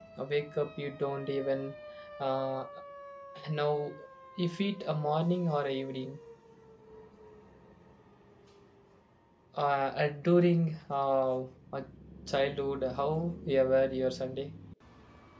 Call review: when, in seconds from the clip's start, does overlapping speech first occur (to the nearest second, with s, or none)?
none